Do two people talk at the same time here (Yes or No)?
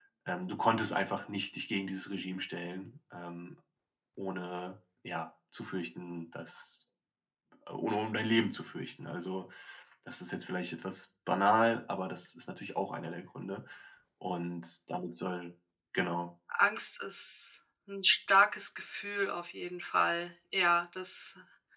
No